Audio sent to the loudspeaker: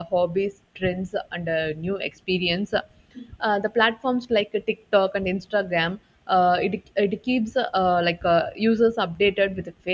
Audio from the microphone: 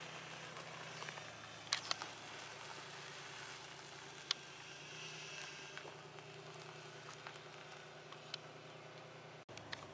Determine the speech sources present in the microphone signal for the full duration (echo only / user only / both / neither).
neither